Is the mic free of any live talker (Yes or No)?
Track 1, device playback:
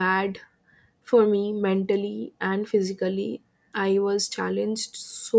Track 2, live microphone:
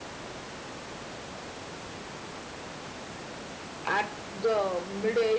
No